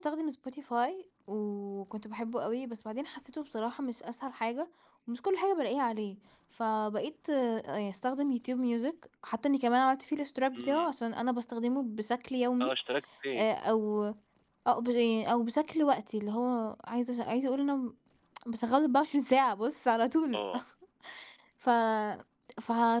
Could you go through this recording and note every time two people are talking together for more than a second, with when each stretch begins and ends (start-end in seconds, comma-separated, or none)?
none